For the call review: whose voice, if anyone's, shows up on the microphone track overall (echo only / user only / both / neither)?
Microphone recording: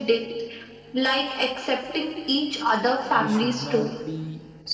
both